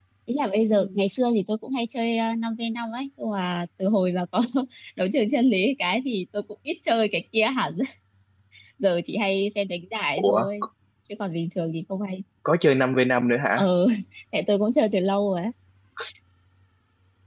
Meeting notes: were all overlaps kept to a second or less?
Yes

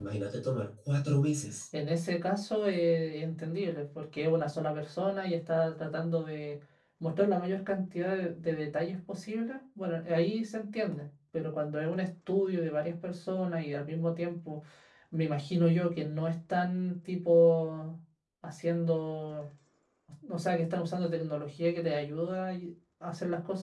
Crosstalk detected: No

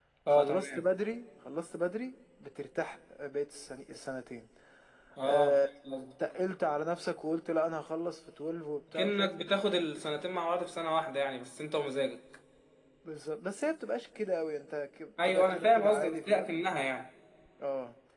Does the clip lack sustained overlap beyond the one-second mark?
No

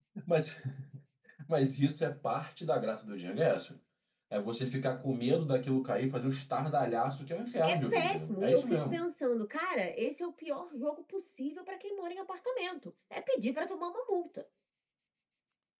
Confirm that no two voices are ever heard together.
No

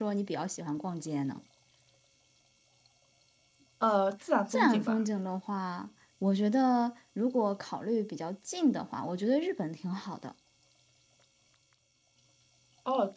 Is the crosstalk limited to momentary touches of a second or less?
Yes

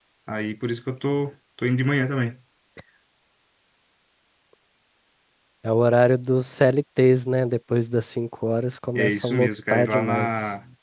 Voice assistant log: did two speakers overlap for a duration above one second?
Yes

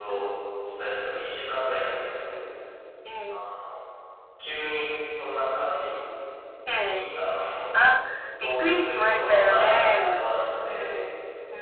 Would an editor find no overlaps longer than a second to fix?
No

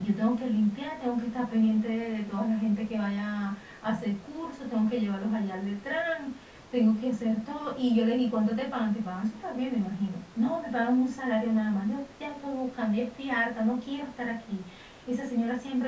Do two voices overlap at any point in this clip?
No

